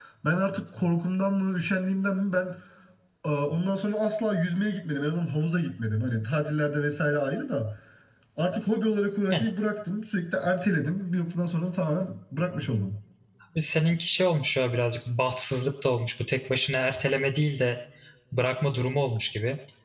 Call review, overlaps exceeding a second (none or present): none